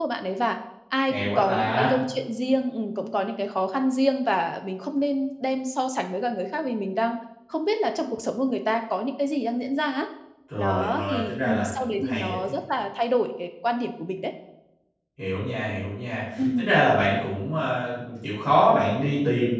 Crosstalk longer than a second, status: present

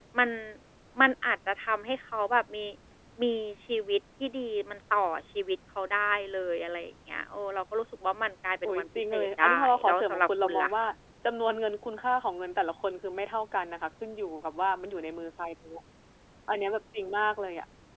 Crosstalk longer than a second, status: present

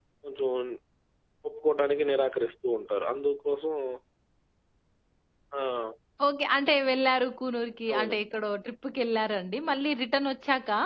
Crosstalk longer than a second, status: none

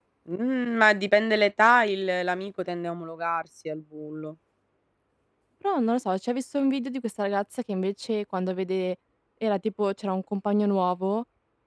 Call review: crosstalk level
none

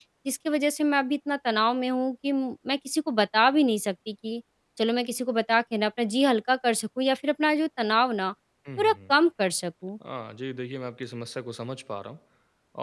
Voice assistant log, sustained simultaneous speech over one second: none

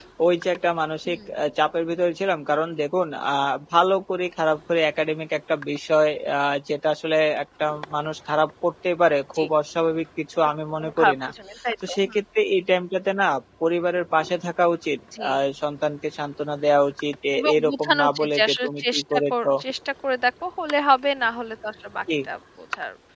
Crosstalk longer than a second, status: present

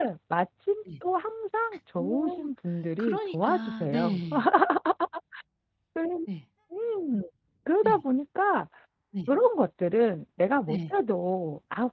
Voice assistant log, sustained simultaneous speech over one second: present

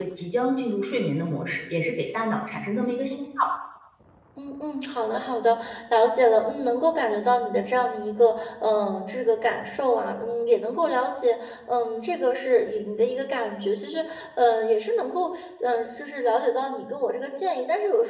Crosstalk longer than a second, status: none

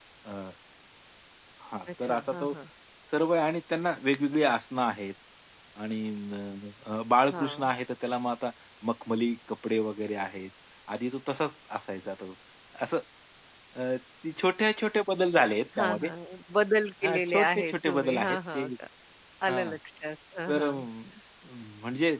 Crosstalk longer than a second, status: present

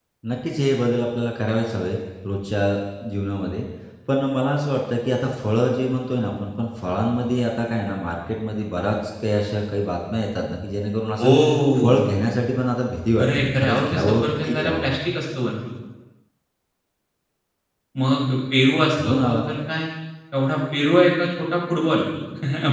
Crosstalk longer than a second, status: present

